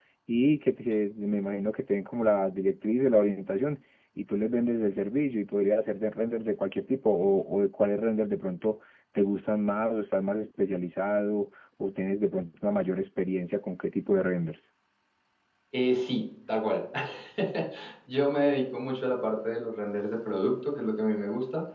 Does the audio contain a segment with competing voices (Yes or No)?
No